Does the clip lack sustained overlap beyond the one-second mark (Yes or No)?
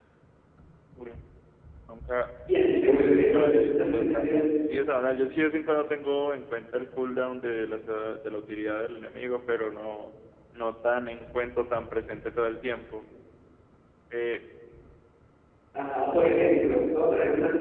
No